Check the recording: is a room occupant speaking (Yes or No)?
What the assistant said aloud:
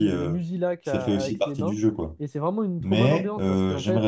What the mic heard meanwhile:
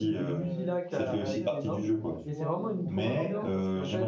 Yes